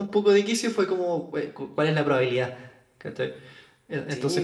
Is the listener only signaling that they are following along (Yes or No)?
No